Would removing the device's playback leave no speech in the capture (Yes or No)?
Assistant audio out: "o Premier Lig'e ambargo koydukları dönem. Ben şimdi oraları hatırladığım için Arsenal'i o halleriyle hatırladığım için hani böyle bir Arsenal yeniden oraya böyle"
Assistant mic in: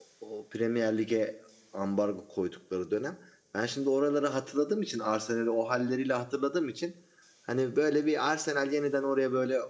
Yes